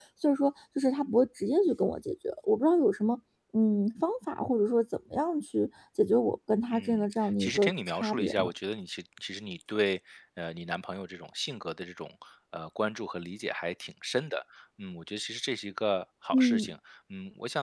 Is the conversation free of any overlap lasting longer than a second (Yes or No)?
No